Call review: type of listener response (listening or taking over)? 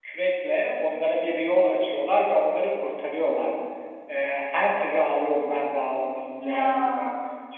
listening